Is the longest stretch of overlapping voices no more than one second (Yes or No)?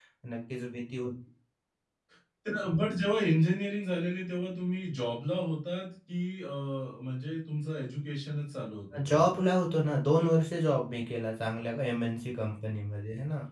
Yes